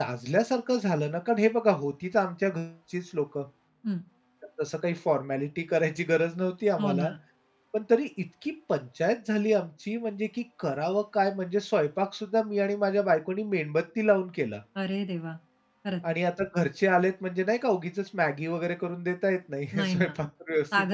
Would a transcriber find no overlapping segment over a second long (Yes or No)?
Yes